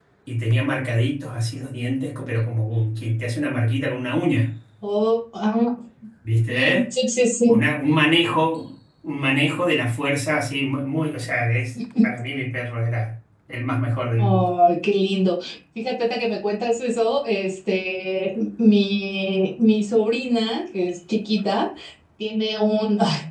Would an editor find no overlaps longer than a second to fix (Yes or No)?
Yes